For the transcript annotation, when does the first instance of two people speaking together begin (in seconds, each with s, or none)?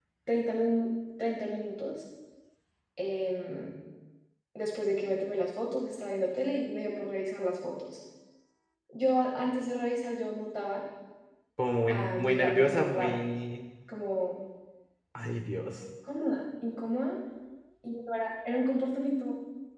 11.9 s